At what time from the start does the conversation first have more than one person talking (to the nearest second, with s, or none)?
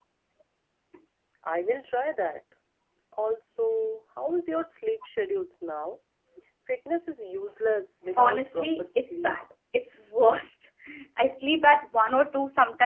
8 s